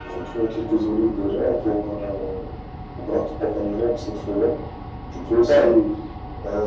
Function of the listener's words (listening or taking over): listening